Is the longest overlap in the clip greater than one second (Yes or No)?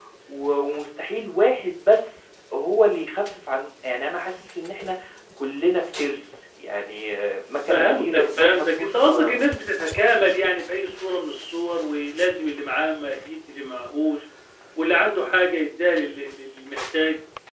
Yes